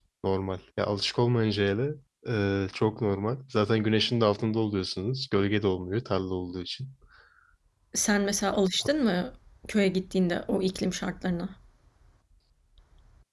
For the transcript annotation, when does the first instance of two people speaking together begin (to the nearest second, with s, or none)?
none